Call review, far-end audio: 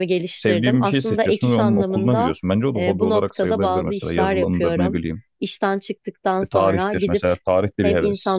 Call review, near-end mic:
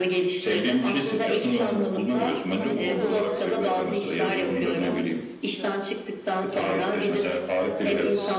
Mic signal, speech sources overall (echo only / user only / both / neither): both